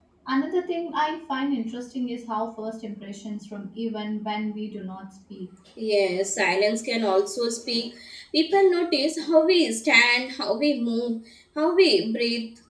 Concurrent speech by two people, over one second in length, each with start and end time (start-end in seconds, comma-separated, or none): none